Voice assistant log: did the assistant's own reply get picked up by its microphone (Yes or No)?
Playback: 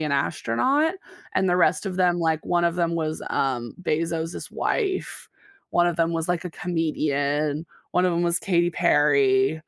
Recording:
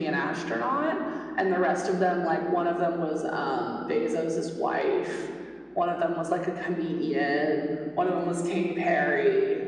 Yes